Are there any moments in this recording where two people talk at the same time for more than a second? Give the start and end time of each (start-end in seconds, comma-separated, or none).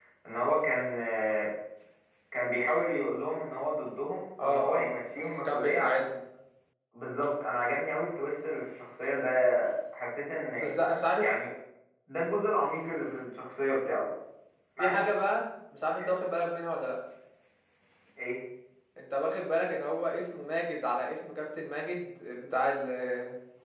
4.4-5.9